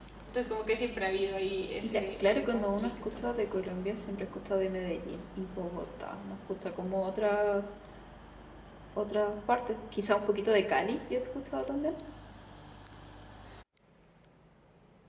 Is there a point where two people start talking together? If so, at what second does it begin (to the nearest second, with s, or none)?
2 s